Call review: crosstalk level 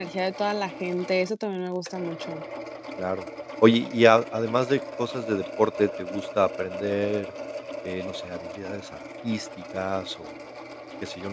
none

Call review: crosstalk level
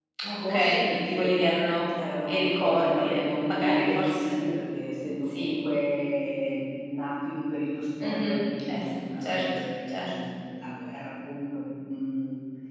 present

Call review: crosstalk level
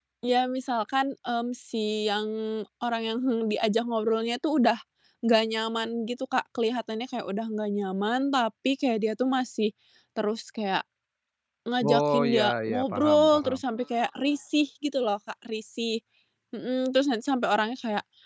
present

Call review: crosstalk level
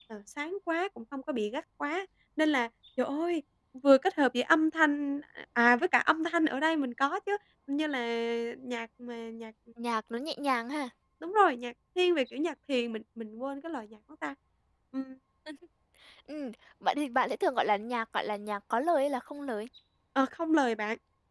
none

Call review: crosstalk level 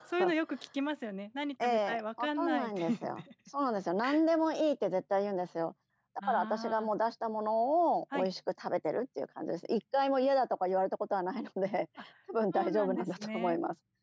present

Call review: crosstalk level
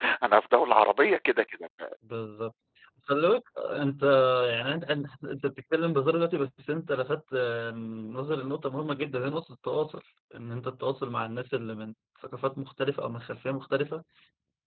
none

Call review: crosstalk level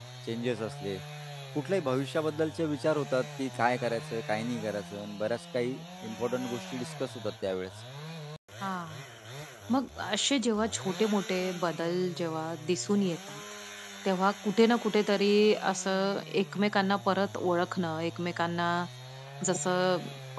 none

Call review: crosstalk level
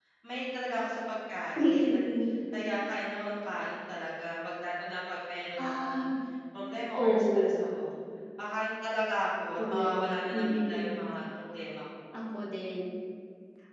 present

